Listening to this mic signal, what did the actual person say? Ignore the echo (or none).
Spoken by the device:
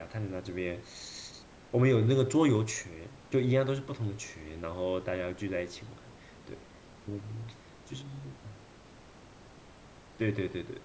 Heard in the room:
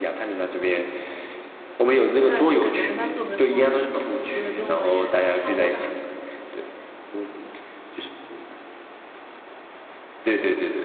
但就感觉跟他特别投缘嘛，可能因为跟我也差不多大，